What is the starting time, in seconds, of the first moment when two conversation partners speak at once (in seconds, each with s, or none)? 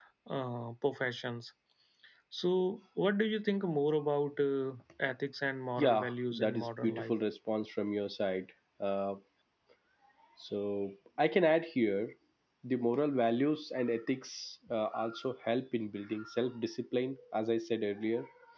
5.8 s